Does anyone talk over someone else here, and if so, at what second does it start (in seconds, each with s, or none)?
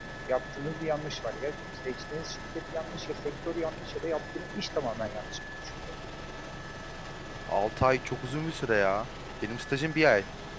none